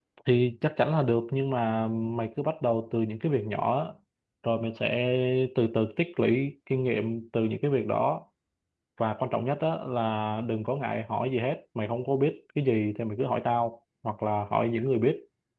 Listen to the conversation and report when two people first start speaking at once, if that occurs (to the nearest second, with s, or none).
none